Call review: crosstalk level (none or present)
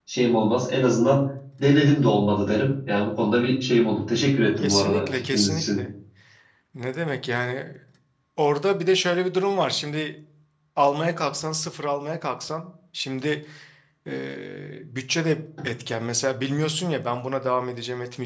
present